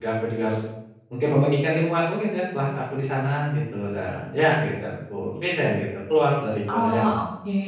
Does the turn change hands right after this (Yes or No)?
Yes